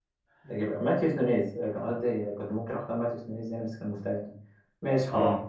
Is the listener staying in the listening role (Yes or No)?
Yes